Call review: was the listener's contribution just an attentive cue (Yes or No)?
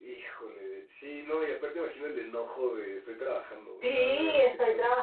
No